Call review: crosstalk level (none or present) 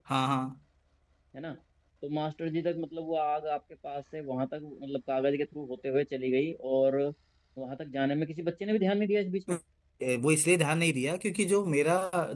none